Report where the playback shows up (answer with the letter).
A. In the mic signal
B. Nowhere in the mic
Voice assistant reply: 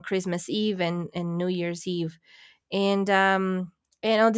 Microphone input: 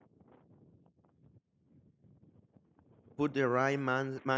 B